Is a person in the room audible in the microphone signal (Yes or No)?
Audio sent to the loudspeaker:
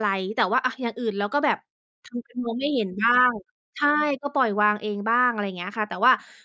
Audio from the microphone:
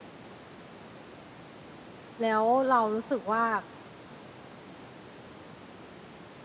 Yes